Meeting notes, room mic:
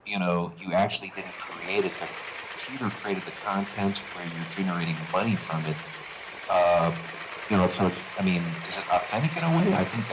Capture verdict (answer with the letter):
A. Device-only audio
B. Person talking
A